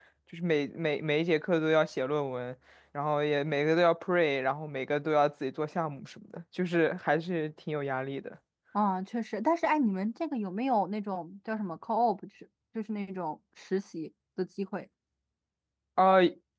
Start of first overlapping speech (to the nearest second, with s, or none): none